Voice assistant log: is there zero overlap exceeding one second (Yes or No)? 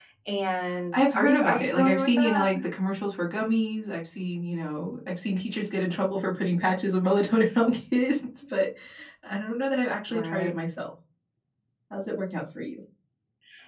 No